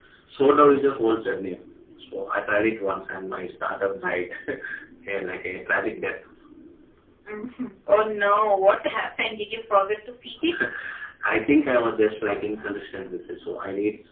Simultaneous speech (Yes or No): No